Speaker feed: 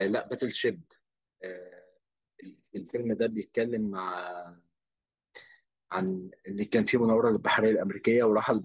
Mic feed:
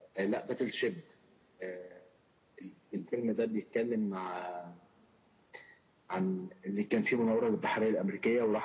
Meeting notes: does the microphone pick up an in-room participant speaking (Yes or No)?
No